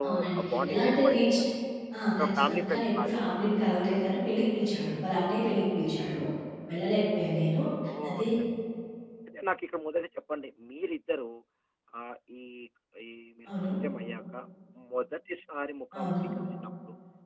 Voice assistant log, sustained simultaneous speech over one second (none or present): present